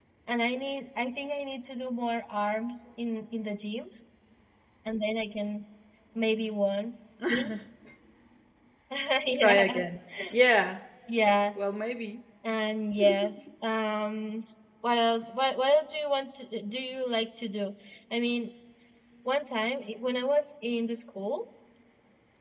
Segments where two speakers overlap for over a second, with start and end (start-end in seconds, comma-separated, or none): none